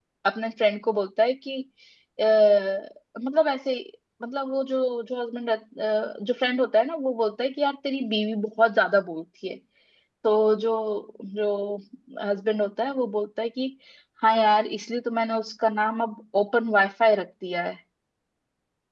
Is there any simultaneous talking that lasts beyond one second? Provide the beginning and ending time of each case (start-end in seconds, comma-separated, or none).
none